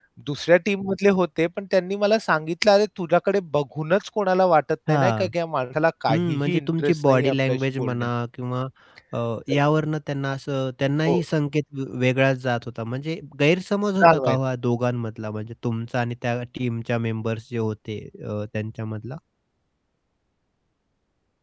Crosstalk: present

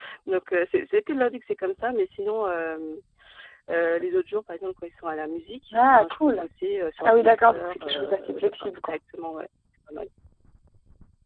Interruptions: present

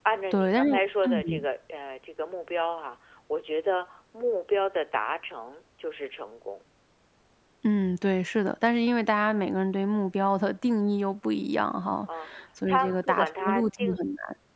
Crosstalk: present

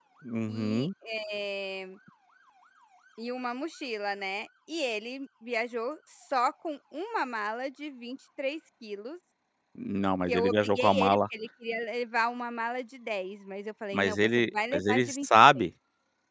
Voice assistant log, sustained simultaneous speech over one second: present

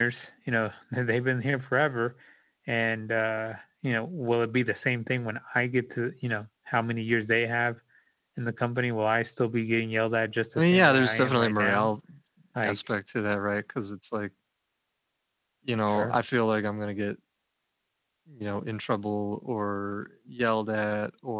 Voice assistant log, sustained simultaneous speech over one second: present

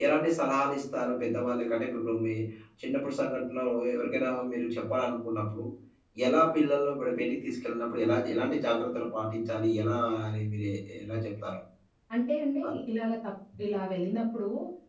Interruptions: none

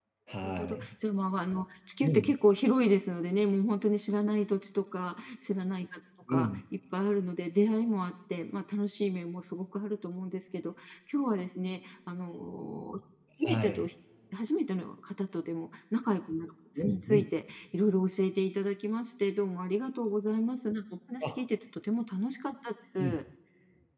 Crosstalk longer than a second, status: none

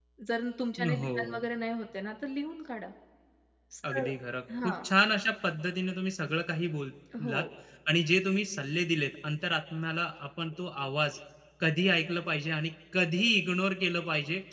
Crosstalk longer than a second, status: none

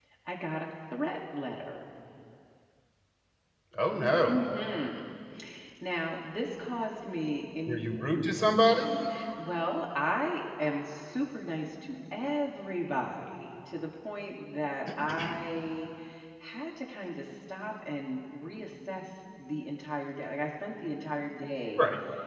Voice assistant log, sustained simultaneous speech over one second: none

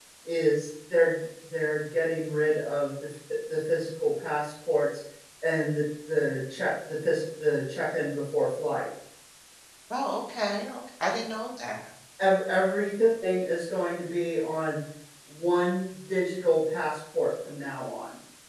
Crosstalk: none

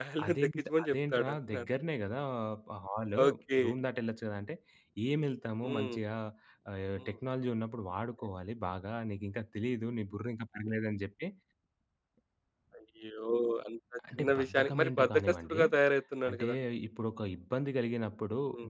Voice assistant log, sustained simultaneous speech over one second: present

